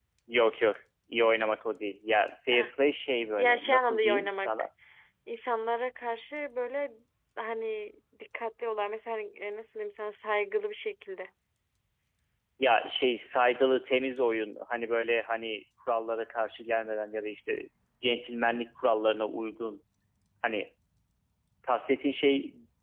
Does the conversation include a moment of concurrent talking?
Yes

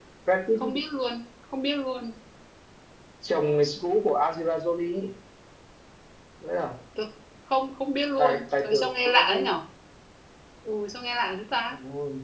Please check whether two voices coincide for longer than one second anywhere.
Yes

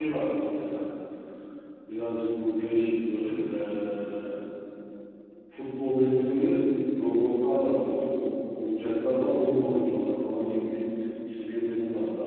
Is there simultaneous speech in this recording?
No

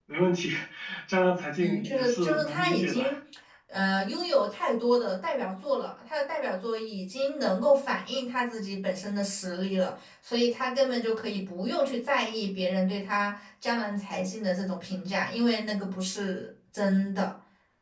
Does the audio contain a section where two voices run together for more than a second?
Yes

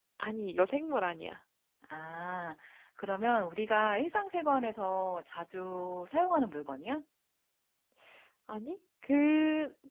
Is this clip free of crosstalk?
Yes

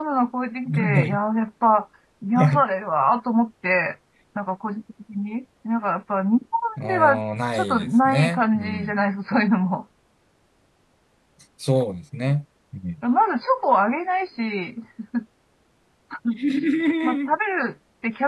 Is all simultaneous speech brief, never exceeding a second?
No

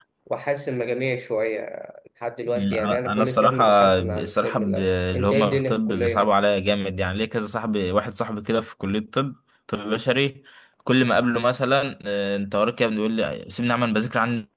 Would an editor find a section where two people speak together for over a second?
Yes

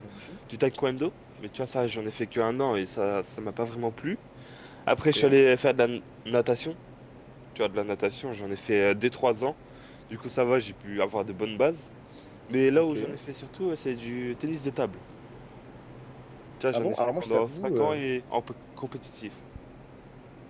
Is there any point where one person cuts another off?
Yes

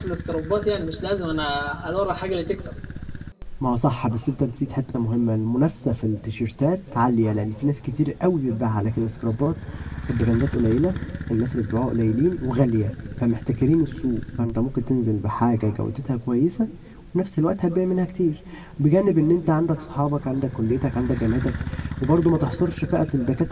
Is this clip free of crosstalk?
Yes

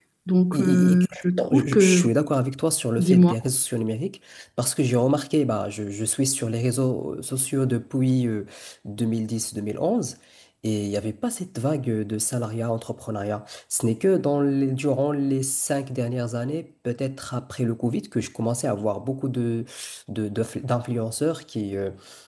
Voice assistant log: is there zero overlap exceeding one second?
No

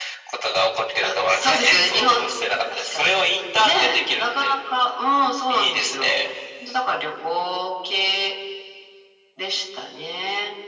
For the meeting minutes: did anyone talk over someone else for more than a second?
Yes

